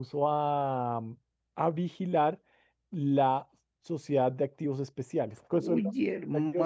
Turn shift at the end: Yes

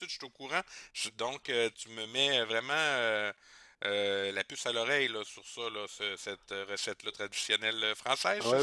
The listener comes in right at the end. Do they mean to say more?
Yes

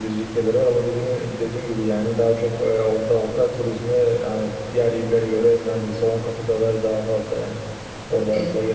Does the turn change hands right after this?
No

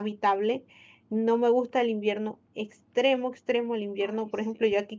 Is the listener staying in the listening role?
Yes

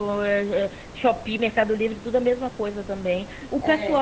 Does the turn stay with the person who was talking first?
Yes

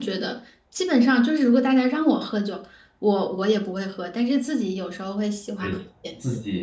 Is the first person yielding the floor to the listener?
Yes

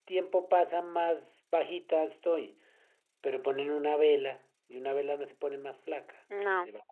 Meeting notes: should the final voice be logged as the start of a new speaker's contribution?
Yes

